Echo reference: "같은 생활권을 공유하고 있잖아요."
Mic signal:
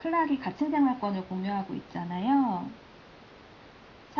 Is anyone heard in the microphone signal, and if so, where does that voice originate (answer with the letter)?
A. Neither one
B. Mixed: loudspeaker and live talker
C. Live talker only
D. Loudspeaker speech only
D